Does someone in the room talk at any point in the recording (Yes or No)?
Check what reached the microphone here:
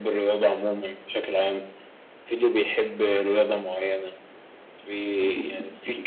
No